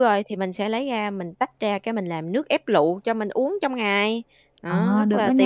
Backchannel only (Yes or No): No